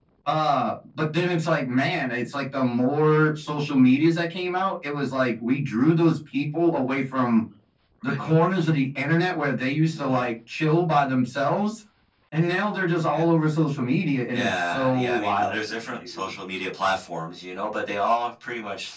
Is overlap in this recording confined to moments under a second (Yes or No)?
No